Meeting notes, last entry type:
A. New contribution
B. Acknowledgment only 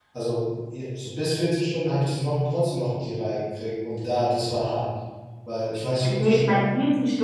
A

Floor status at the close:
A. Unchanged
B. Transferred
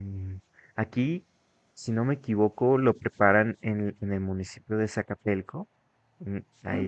A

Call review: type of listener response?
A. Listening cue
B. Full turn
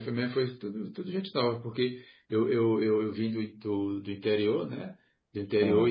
A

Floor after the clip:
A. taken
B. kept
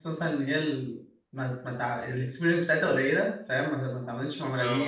B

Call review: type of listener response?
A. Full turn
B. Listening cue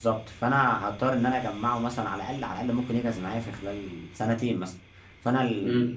B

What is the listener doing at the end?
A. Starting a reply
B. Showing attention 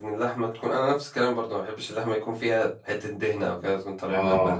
A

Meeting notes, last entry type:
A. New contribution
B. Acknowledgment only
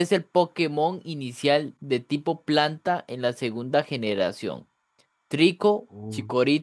B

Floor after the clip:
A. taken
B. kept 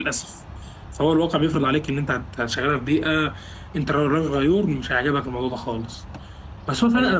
B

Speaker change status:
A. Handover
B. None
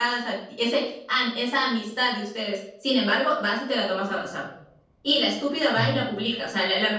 B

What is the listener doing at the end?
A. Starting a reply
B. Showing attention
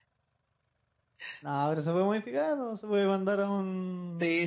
A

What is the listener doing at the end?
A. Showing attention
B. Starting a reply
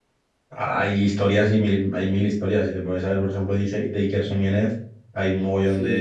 A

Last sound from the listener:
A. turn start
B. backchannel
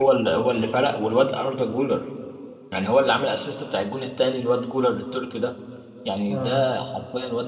B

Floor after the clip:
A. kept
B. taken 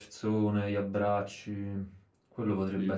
A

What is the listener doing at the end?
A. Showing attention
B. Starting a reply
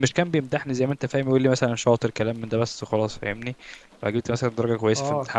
B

